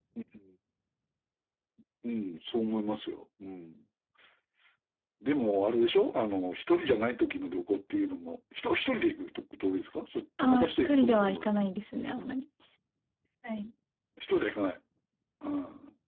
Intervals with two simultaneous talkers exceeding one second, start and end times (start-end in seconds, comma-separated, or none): 10.4-11.7